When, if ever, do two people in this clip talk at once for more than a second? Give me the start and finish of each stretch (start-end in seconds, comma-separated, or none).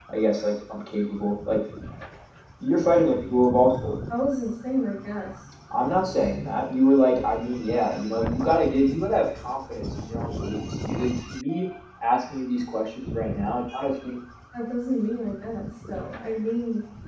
none